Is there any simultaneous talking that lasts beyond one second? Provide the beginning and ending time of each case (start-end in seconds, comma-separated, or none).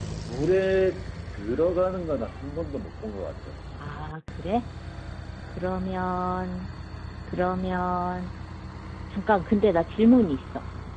none